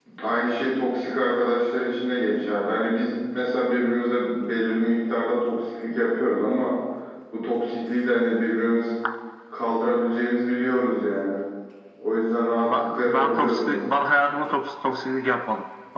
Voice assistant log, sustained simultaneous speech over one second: present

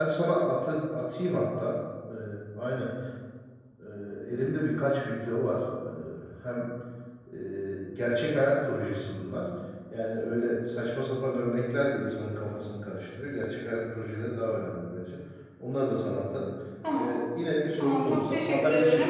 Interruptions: present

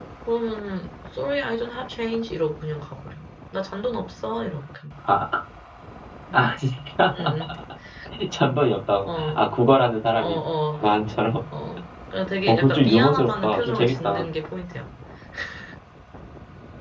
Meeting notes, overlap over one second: present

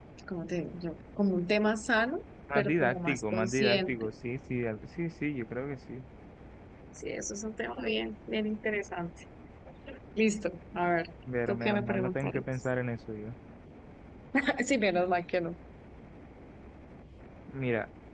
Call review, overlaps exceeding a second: present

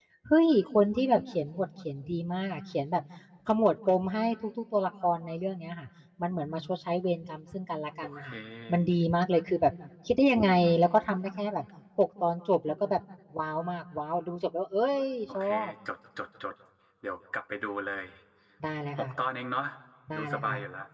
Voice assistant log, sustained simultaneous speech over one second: none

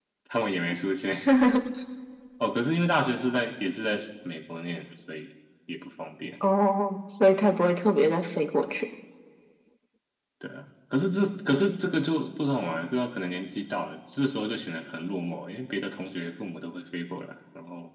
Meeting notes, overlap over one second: none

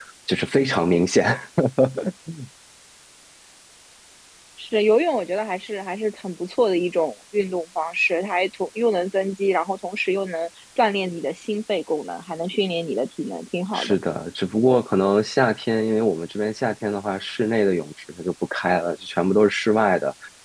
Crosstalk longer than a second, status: none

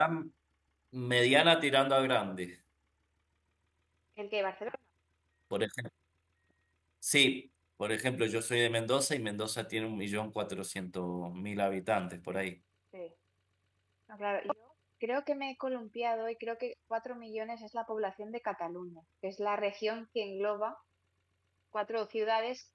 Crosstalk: none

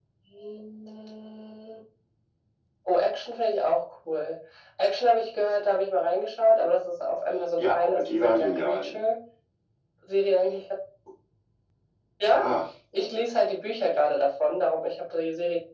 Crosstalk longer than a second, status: present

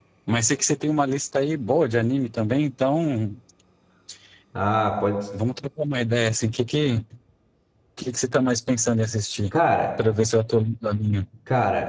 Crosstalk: none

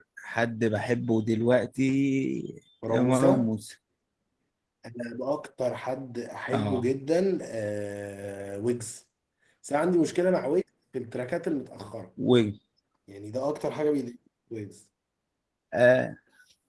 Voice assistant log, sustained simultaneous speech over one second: none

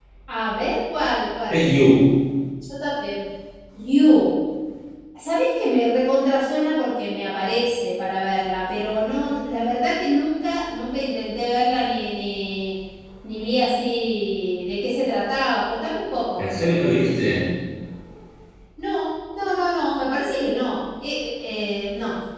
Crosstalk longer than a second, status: none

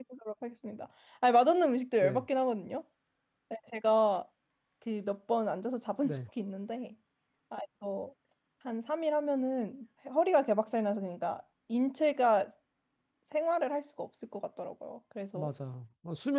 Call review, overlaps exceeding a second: none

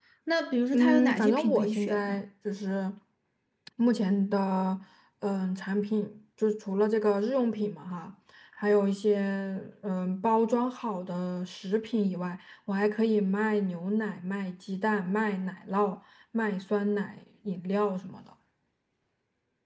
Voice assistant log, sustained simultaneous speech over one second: present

